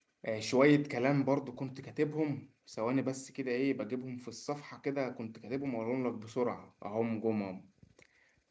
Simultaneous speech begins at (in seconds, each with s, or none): none